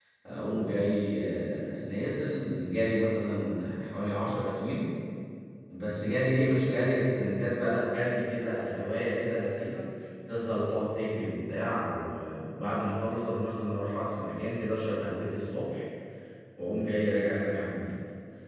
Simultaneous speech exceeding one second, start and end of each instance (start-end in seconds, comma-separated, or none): none